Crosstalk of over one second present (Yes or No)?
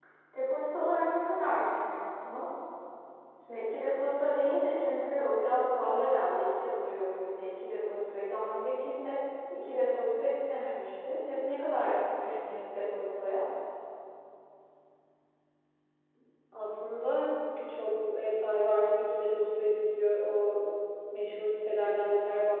No